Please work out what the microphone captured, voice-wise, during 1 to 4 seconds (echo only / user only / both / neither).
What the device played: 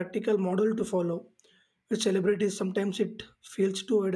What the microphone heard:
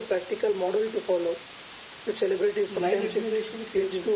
both